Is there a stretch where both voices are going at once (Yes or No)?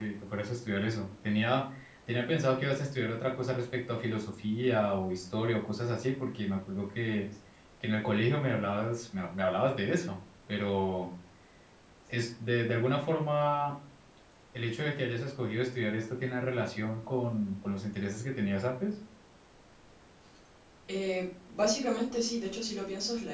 No